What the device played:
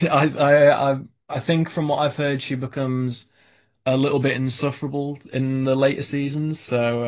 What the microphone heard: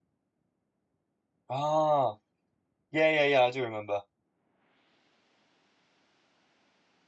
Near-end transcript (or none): Ah, yeah, yeah, yeah. I do remember.